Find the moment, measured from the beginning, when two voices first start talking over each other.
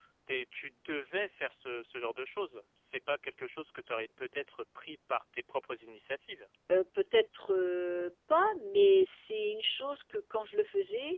none

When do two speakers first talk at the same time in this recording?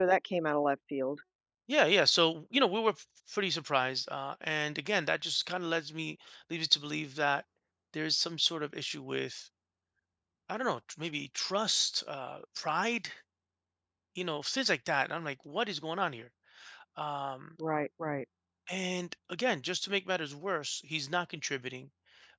none

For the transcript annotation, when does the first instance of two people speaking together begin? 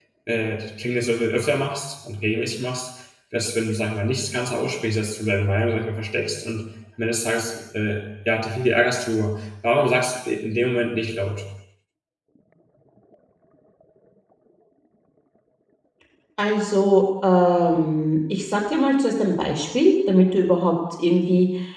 none

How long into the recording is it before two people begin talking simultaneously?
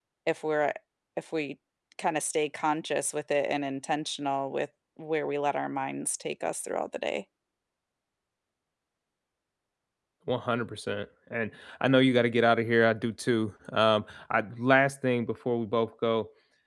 none

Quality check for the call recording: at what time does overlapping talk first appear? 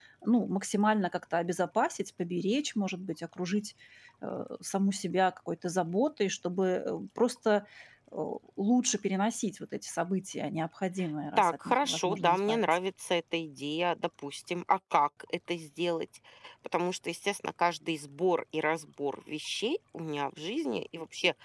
11.4 s

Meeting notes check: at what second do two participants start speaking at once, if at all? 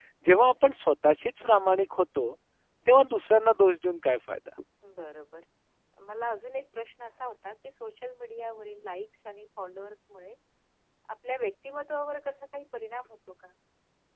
none

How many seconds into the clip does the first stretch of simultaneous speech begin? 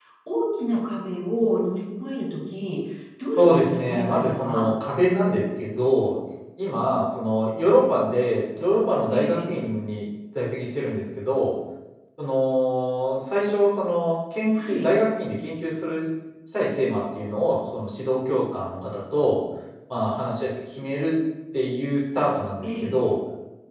3.4 s

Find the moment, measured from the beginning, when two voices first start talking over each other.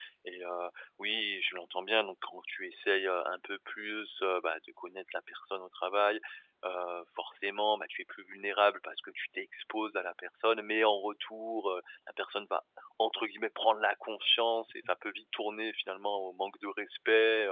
none

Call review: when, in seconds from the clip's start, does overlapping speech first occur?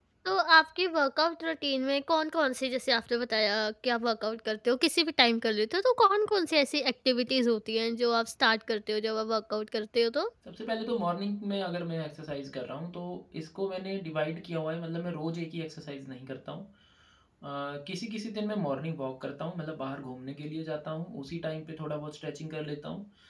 none

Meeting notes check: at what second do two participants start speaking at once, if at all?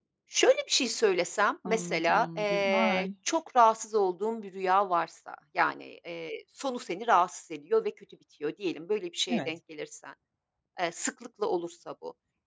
1.6 s

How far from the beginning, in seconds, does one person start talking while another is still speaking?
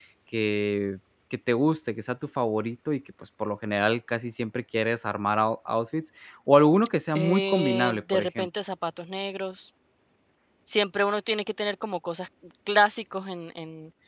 7.2 s

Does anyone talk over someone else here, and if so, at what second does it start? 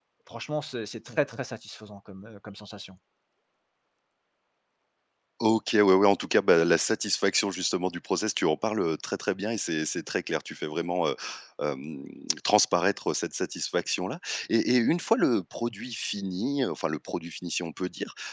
none

